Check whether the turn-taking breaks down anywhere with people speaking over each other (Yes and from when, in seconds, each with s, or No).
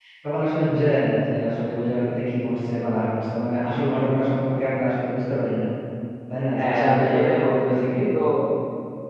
Yes, from 6.5 s